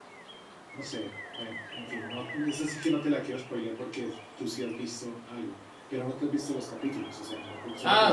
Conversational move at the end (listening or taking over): taking over